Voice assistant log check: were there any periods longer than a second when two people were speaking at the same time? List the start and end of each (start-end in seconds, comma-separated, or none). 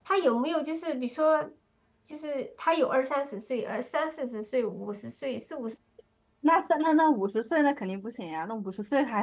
none